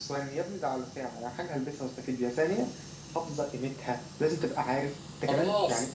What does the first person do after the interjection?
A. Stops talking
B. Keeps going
A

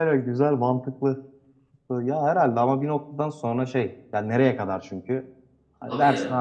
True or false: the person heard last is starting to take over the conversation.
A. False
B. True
A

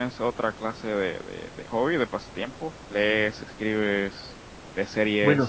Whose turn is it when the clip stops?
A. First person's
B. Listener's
B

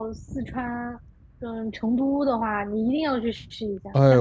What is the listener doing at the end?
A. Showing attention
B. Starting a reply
B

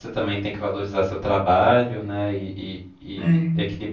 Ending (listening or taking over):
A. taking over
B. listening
B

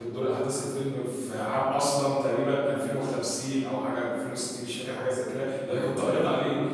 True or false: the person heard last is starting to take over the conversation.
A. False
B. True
A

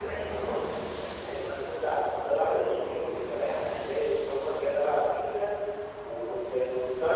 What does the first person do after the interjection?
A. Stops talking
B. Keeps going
B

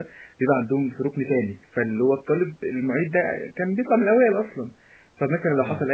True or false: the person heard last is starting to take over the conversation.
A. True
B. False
B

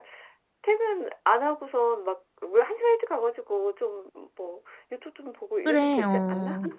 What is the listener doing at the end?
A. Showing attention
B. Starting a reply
B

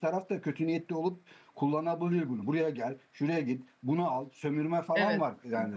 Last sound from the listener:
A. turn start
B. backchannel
A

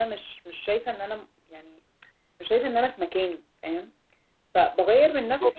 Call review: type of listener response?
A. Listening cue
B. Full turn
A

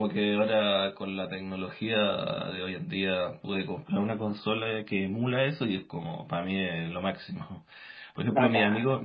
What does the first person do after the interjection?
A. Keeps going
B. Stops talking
A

